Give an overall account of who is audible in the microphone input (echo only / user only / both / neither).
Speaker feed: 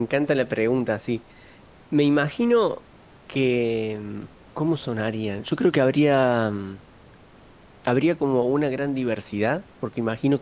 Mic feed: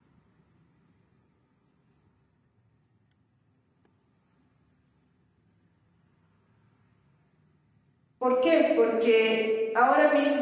user only